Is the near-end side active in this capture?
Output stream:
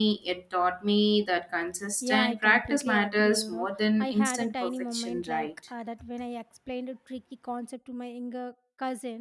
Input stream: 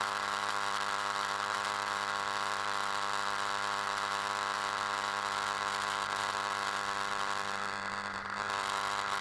No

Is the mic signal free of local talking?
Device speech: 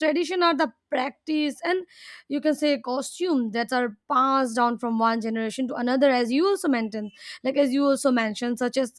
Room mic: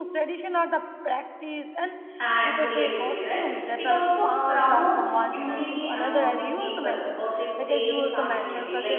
No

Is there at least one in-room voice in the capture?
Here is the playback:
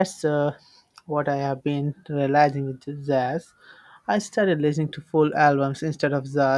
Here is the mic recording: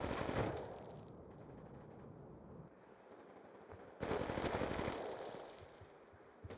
No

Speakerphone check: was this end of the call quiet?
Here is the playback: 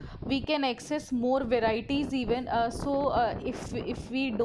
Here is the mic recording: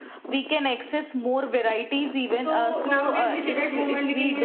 No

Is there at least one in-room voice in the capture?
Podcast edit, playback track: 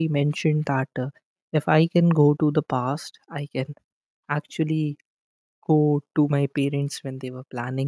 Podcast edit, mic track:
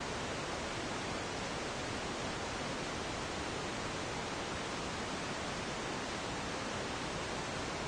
No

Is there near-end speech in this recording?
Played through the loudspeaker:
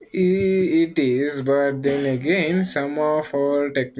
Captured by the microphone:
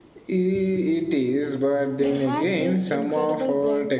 Yes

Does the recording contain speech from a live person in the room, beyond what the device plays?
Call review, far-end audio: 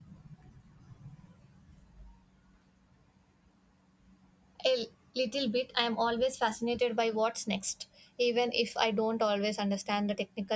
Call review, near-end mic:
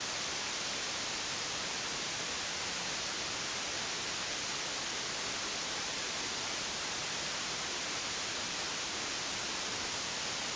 No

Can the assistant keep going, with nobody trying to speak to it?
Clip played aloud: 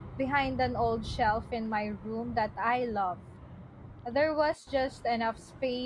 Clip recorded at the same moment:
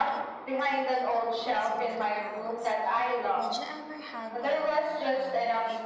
No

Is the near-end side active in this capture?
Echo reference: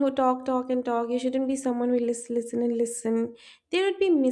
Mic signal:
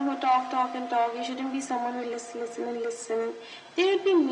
No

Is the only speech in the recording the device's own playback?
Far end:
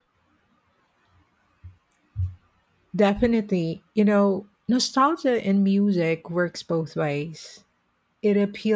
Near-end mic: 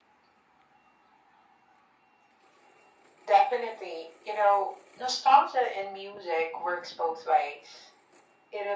Yes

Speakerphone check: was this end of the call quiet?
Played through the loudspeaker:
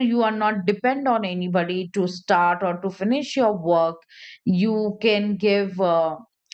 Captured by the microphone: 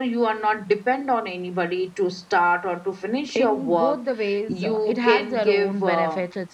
No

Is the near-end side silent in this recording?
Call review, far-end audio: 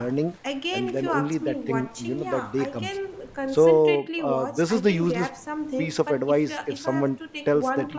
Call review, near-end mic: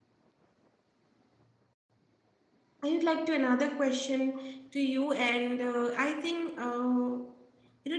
No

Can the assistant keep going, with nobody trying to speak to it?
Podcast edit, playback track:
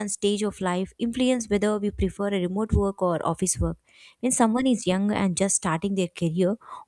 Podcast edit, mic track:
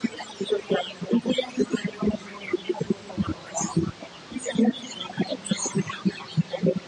Yes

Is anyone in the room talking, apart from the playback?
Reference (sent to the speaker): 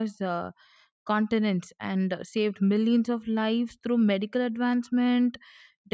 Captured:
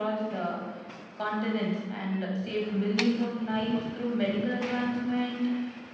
No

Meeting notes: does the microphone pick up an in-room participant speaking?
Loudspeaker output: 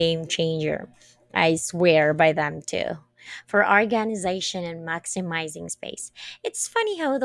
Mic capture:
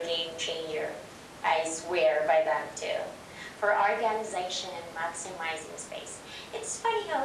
No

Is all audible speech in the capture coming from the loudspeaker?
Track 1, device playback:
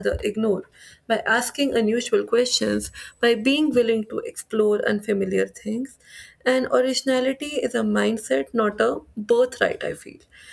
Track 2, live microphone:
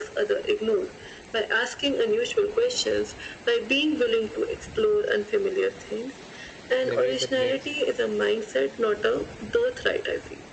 No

